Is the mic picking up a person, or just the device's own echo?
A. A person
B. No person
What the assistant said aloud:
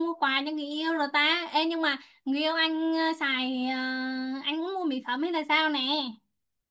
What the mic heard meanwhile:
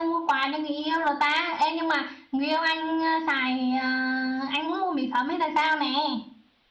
B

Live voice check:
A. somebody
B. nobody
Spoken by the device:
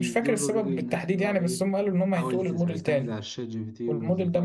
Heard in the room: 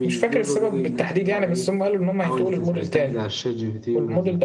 B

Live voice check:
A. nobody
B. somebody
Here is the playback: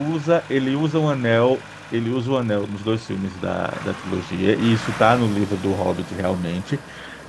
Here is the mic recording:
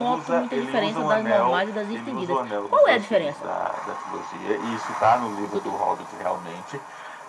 B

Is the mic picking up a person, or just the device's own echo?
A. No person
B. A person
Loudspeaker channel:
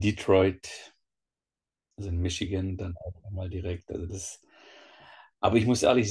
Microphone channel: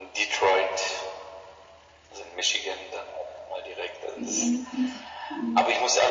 B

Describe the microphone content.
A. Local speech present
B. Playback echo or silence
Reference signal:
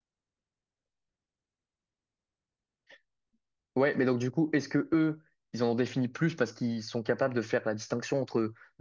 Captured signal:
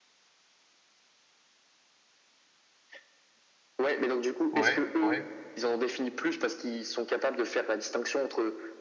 A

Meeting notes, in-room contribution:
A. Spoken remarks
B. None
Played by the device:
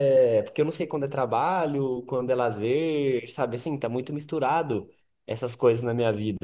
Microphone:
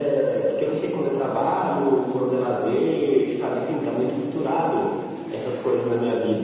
B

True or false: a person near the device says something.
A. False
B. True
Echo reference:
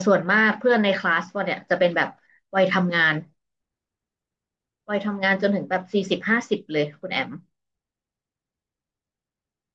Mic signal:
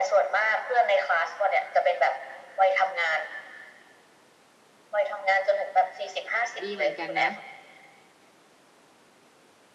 B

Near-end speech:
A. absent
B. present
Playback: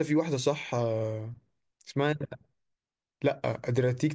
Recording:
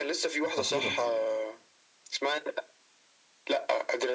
B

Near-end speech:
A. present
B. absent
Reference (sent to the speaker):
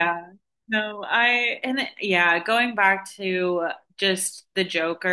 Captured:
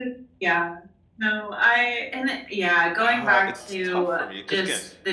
A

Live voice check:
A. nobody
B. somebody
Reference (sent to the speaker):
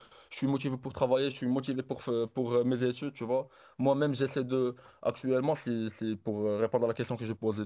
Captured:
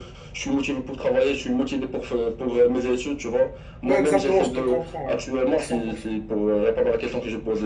B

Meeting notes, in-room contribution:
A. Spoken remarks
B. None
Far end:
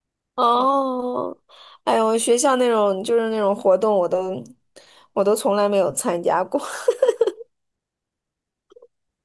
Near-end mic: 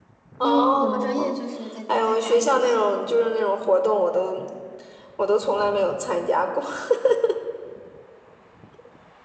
A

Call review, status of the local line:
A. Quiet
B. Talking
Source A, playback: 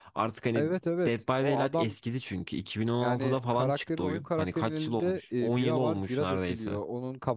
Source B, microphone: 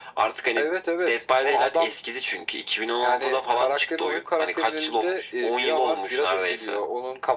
A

